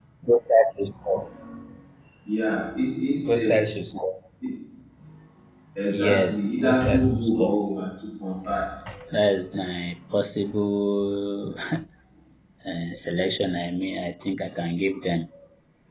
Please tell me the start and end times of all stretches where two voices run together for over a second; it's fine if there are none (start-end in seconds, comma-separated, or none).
5.9-7.5